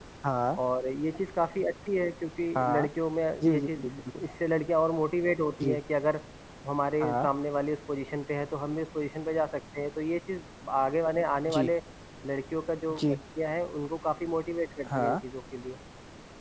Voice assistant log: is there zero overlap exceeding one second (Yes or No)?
Yes